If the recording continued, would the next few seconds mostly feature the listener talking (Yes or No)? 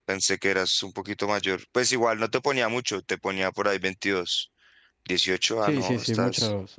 Yes